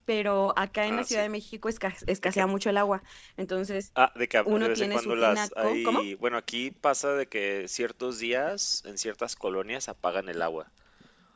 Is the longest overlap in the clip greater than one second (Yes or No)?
Yes